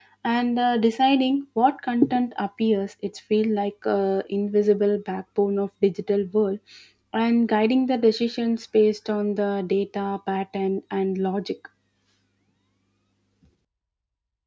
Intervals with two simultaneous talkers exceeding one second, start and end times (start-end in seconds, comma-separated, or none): none